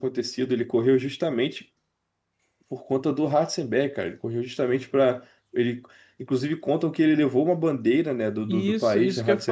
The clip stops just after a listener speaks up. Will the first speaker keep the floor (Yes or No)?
No